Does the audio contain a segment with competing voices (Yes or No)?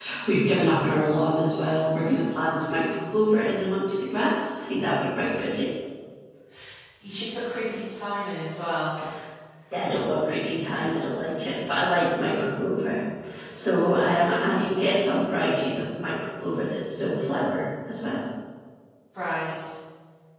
No